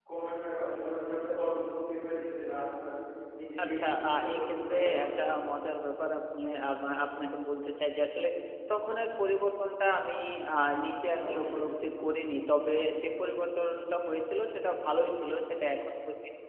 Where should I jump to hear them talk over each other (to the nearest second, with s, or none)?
4 s